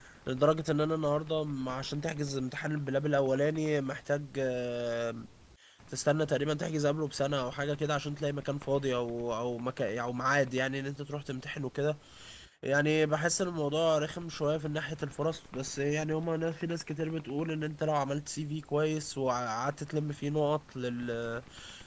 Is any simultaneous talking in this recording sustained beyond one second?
No

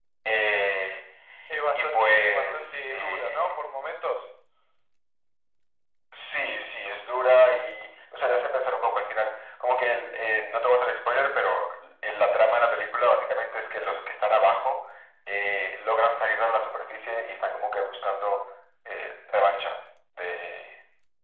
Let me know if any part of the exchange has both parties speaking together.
Yes, from 1.8 s

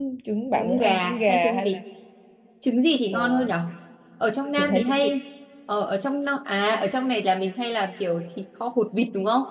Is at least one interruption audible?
Yes, from 0.6 s

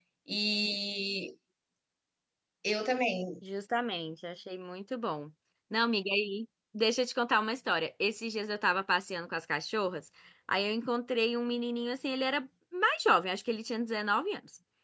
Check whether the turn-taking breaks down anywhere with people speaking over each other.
No

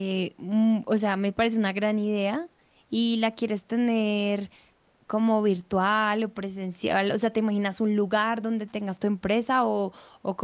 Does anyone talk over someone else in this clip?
No

